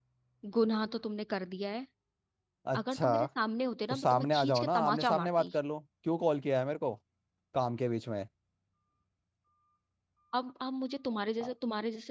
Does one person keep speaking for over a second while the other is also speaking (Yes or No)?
Yes